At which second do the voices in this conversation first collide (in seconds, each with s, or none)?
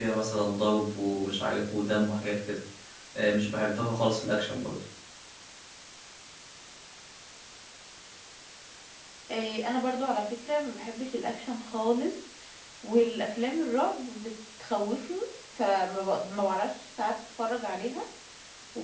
none